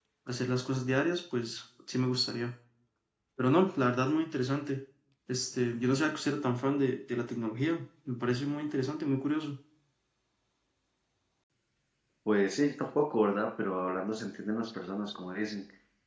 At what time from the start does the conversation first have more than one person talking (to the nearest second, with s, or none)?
none